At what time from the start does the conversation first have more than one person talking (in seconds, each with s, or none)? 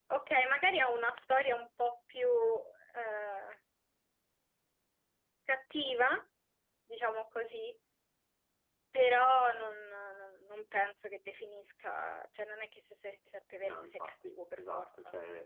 13.6 s